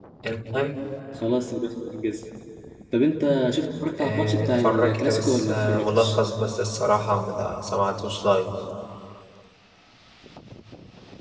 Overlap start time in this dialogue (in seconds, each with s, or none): 4.0 s